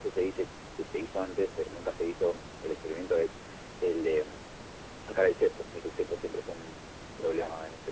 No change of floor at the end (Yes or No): Yes